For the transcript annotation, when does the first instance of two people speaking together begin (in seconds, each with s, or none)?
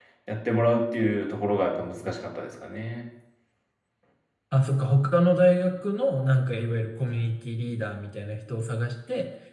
none